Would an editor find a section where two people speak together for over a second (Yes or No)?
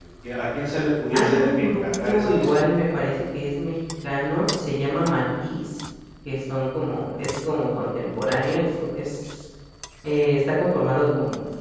Yes